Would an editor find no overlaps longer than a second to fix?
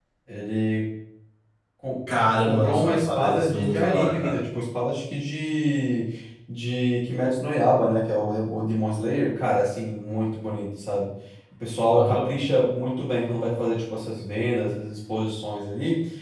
No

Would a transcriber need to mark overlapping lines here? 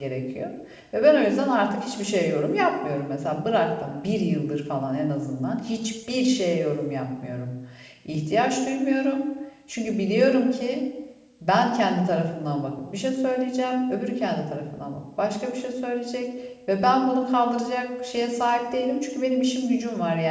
No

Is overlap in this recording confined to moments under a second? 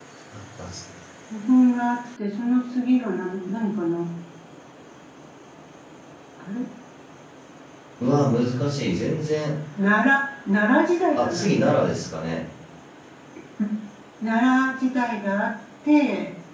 Yes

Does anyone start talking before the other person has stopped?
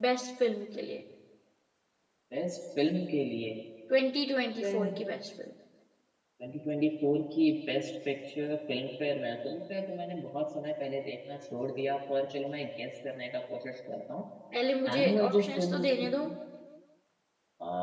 Yes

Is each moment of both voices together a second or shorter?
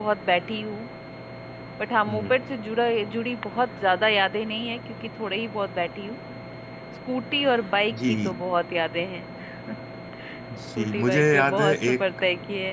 No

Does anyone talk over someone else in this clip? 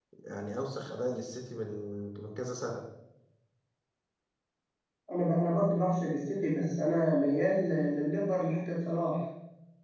No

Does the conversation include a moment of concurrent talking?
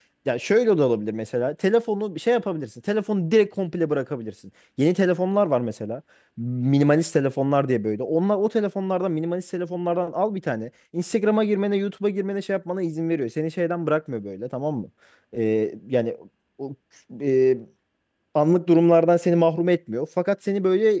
No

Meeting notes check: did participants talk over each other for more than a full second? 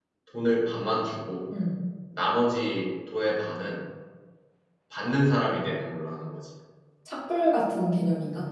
No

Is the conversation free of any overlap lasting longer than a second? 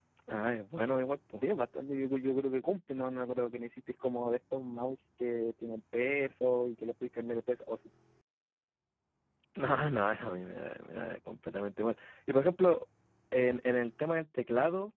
Yes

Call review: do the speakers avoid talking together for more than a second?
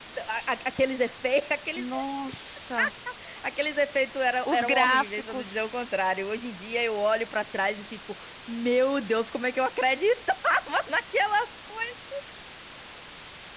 No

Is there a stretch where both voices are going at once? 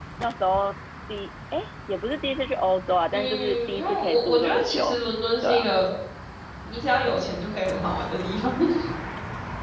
Yes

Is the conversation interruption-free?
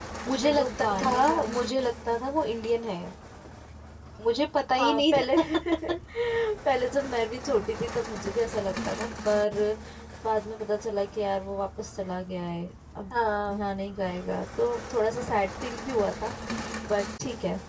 No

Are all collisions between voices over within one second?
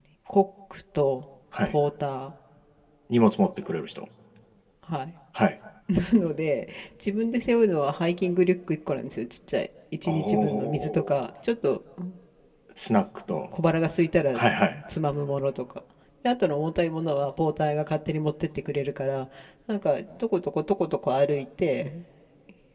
No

